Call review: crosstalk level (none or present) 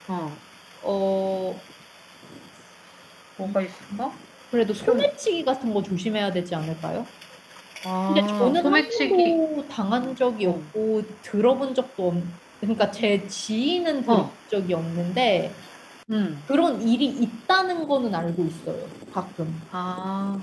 present